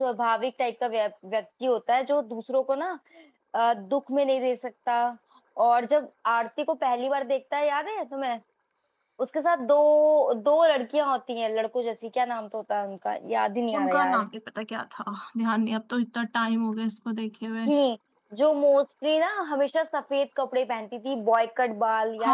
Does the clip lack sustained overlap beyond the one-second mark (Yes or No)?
Yes